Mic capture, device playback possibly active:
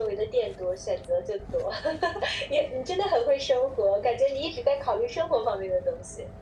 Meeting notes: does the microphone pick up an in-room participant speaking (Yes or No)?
No